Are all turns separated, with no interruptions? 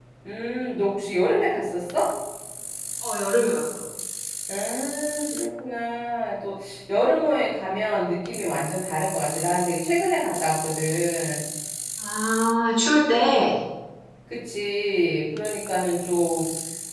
Yes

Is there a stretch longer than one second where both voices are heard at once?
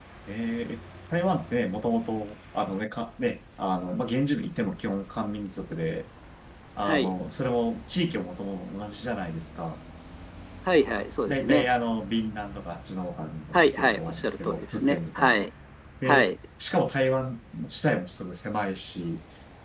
Yes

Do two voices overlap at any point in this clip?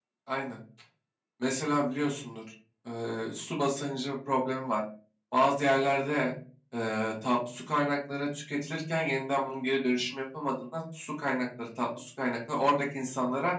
No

